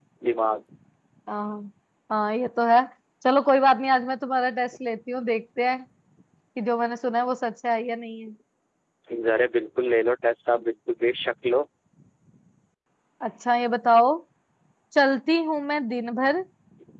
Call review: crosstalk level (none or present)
none